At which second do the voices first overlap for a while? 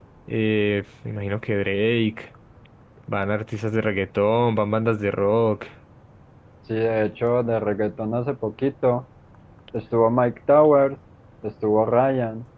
none

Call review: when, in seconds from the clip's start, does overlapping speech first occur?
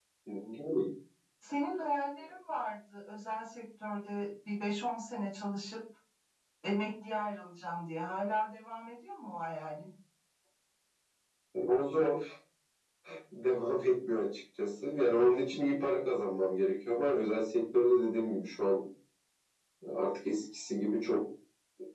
none

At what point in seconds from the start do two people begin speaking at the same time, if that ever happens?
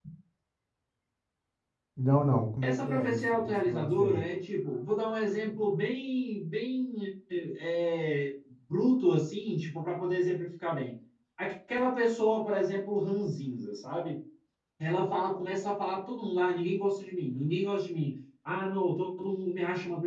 2.6 s

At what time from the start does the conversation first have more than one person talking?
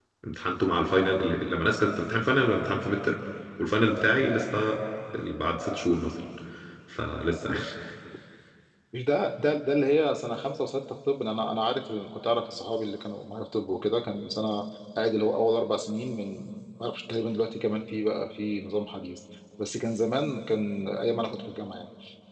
none

